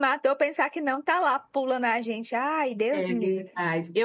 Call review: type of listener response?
taking over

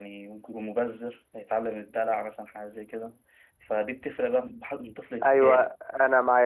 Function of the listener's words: taking over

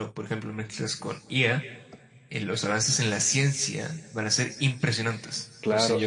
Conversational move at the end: taking over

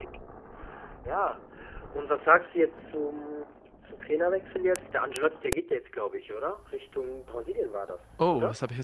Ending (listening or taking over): taking over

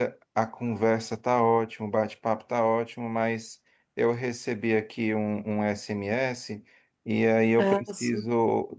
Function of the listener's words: listening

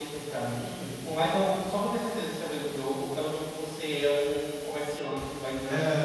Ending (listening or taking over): listening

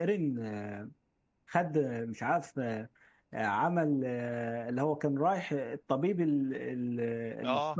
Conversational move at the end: taking over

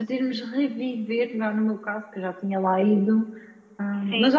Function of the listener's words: listening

